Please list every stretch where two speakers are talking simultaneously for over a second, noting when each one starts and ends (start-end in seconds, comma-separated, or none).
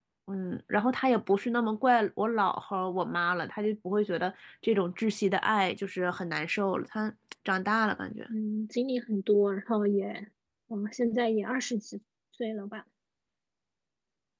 none